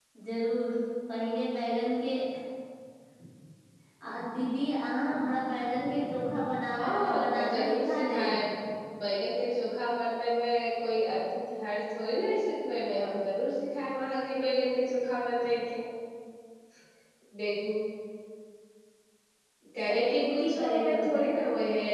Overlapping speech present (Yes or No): Yes